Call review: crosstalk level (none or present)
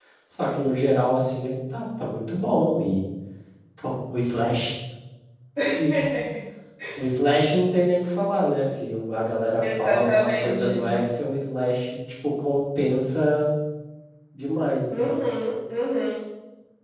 present